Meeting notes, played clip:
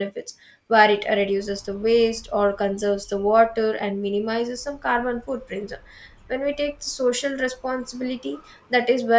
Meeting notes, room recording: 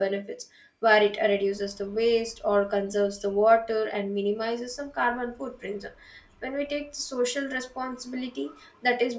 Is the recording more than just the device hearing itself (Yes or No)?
No